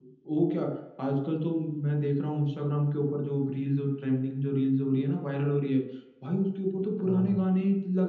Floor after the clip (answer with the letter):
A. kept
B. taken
A